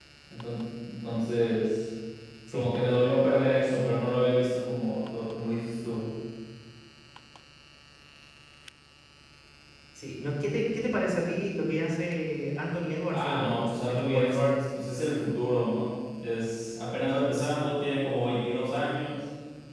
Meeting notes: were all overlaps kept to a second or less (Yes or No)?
No